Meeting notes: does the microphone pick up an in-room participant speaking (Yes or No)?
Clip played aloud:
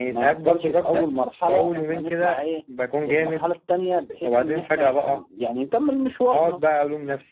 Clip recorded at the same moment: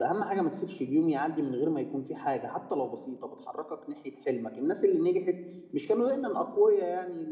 Yes